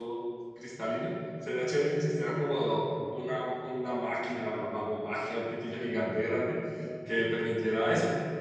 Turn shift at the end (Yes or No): No